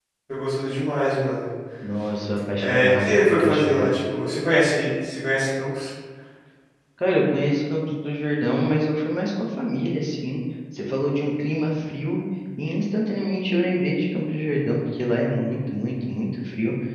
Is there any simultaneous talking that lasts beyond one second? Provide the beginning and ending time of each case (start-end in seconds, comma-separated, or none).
2.6-3.9